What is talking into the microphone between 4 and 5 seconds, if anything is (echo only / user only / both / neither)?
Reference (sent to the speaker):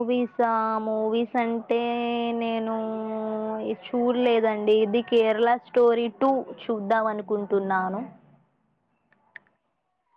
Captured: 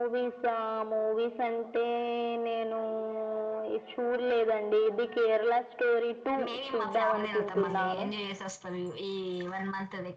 echo only